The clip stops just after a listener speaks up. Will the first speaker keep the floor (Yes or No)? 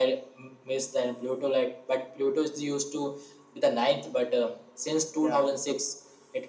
Yes